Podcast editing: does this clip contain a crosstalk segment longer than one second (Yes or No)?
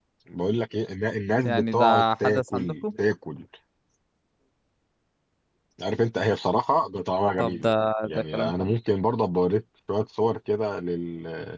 Yes